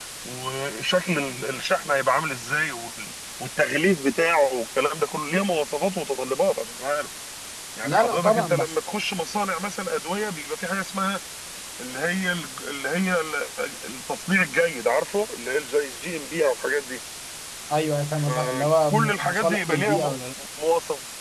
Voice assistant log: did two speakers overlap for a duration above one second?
Yes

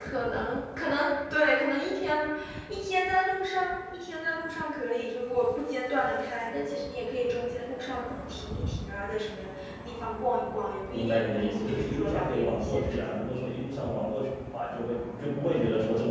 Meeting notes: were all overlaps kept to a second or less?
No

